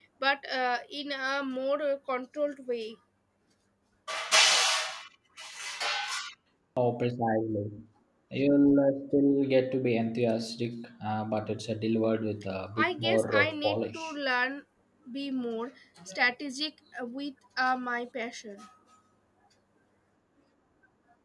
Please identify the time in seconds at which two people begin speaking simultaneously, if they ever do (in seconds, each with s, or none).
12.8 s